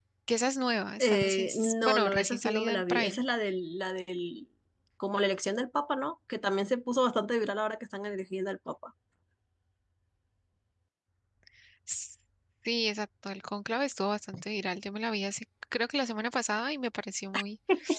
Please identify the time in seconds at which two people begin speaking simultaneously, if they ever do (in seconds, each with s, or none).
1.0 s